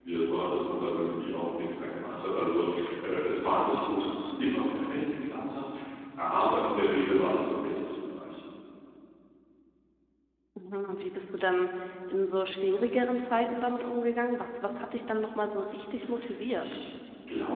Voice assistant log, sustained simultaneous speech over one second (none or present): none